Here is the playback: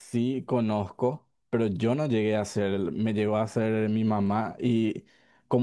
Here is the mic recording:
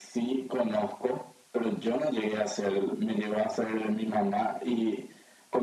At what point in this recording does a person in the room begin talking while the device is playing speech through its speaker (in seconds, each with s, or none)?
none